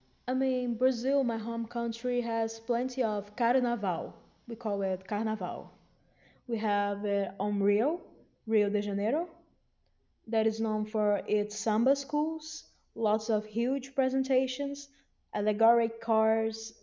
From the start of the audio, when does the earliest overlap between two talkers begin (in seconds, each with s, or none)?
none